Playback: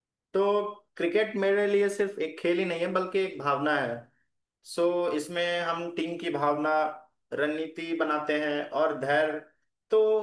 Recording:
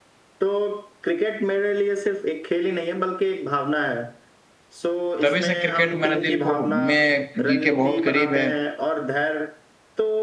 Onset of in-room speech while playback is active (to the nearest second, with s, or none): 5 s